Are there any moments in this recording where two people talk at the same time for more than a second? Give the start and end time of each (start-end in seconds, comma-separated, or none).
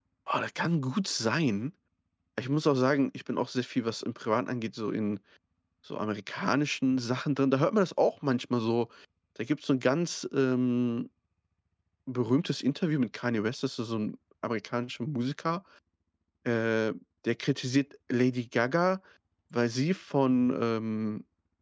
none